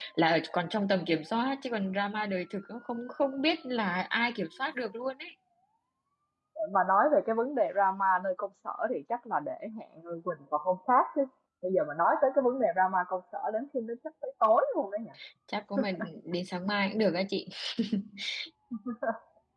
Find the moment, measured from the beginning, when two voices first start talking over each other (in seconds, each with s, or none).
none